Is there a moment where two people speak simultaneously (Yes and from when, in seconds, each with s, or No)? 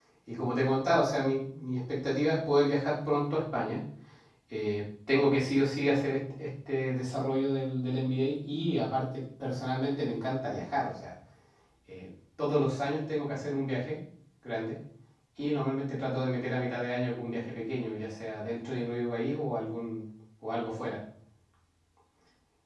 No